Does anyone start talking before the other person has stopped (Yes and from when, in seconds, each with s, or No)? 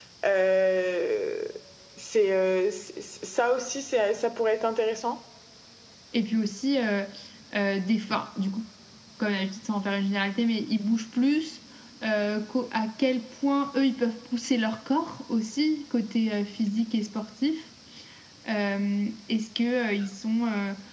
No